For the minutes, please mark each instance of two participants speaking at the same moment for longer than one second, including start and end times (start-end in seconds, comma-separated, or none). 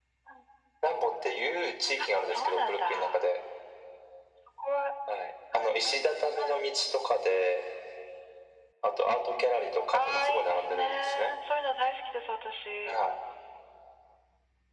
2.0-3.2, 9.9-11.3